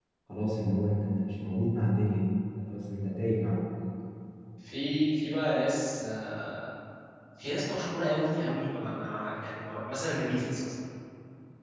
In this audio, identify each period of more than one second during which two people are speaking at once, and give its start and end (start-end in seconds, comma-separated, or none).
none